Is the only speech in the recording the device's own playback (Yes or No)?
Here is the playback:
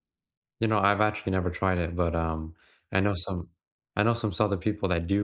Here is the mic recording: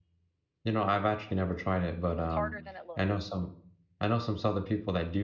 No